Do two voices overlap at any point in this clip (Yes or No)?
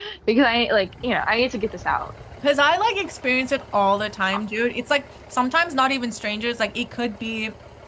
No